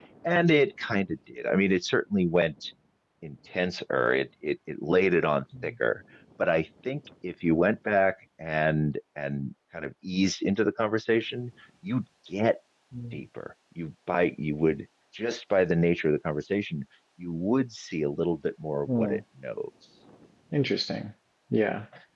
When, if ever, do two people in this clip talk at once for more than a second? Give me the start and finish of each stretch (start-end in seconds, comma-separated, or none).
none